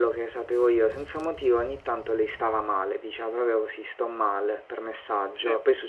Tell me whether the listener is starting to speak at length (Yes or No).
No